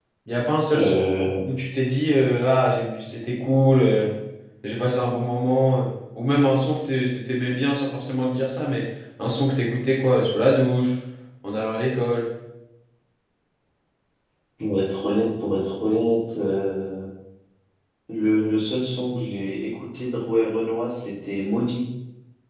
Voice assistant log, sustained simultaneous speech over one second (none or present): none